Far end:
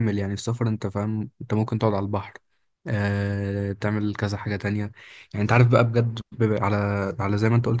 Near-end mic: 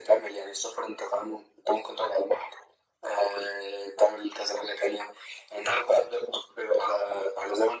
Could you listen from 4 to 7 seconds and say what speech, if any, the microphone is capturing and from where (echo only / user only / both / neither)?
echo only